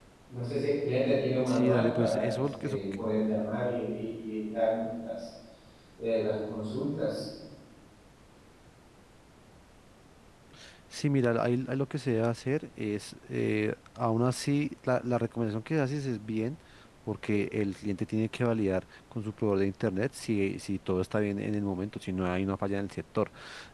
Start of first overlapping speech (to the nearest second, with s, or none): 1 s